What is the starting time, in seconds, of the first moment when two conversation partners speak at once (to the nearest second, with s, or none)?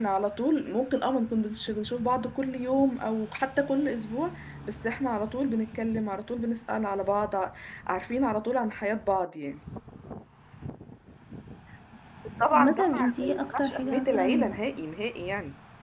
13 s